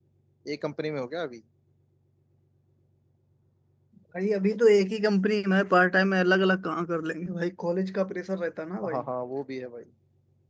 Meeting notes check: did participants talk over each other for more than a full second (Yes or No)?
No